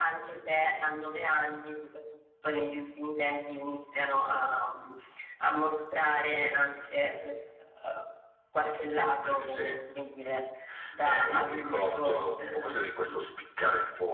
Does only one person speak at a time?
No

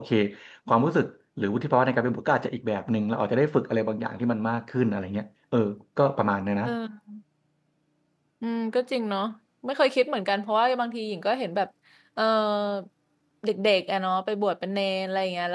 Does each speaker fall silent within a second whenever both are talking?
Yes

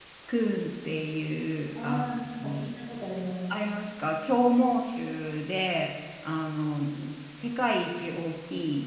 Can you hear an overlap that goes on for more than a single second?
No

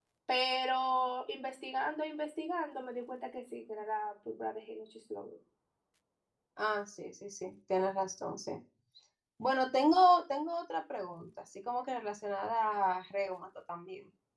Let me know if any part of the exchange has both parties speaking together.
No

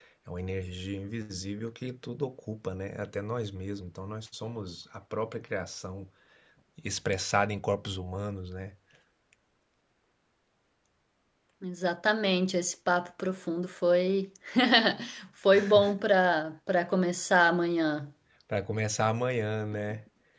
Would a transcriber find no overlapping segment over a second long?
Yes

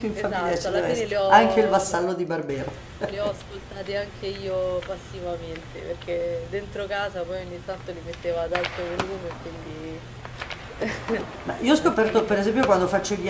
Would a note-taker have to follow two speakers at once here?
Yes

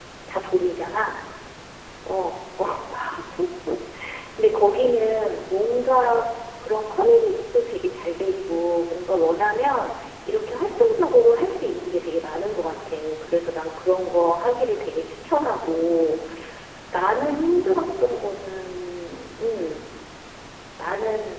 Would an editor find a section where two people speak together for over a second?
No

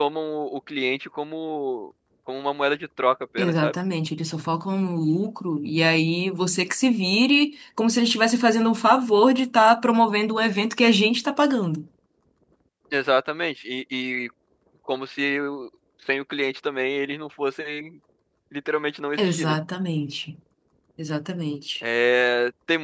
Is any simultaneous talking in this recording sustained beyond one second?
No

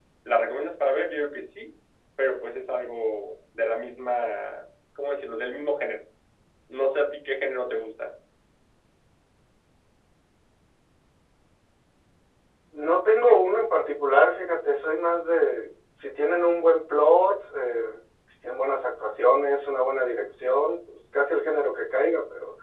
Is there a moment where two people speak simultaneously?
No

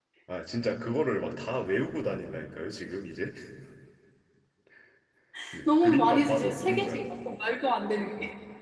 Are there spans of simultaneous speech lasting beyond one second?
Yes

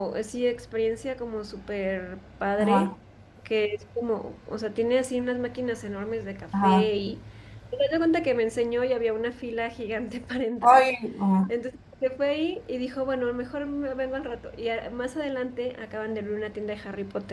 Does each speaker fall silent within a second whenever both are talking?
Yes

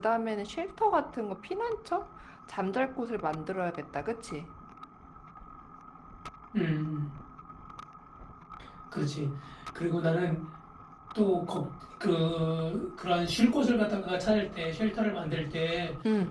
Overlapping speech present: No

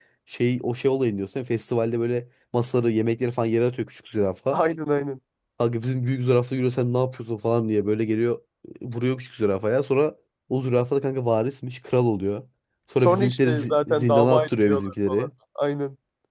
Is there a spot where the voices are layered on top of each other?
Yes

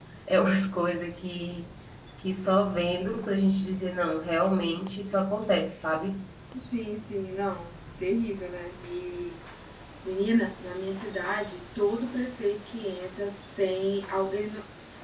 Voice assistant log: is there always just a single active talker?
Yes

